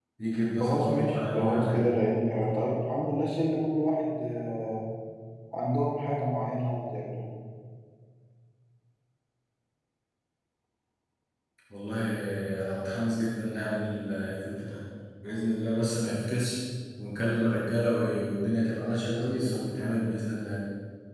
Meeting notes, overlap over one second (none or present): present